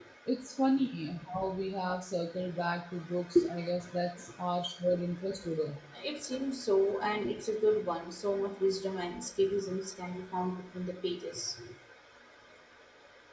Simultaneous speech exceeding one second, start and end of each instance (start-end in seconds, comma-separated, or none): none